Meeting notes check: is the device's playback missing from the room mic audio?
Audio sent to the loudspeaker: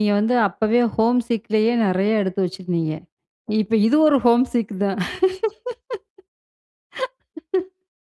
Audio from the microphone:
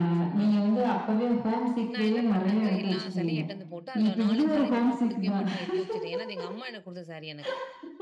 No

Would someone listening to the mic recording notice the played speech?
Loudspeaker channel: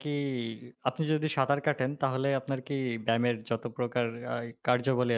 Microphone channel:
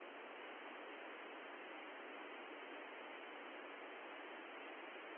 No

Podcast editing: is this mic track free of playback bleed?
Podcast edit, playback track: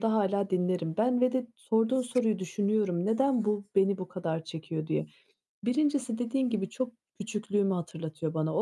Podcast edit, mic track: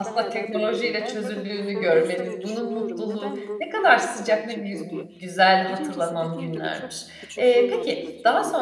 No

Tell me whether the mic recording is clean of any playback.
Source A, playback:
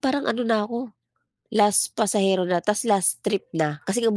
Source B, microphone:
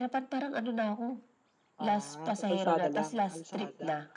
No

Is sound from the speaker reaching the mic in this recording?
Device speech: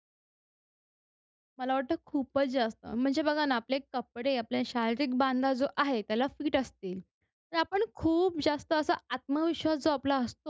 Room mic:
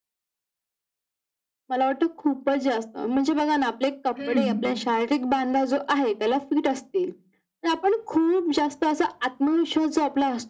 Yes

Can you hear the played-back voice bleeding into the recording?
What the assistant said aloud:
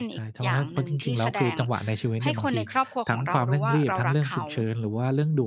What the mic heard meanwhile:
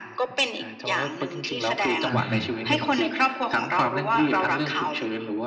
Yes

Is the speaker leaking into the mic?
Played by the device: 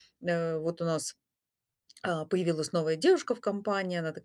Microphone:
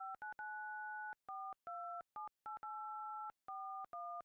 No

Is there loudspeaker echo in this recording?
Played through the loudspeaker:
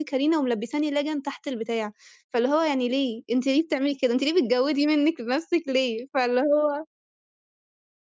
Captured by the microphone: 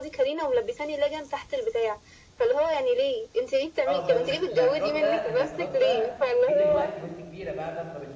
Yes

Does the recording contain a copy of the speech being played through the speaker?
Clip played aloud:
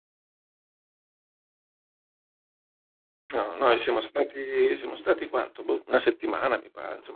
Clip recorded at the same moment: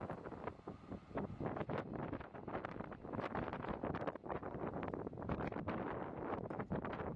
No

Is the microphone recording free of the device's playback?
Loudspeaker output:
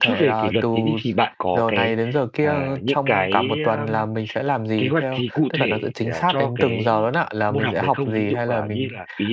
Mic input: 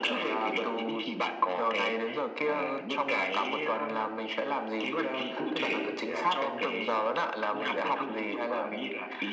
No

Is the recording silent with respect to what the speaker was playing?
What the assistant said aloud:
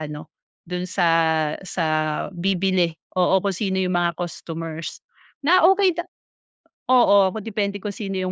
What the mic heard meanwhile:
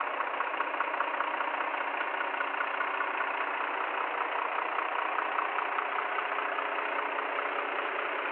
Yes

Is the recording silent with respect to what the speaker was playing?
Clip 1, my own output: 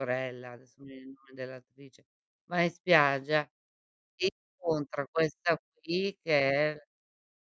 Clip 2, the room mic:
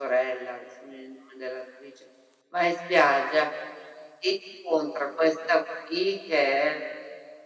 No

